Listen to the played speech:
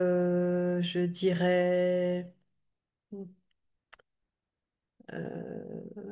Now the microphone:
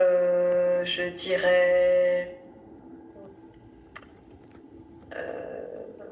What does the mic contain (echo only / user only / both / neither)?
echo only